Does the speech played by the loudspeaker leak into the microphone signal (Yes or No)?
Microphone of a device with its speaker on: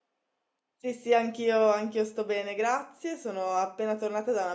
No